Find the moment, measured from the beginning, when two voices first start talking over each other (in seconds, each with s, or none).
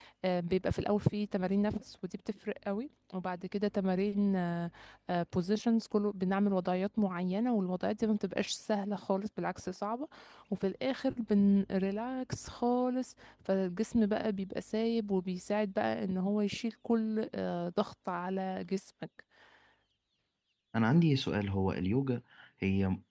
none